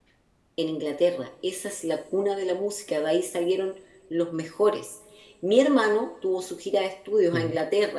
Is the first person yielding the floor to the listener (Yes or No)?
No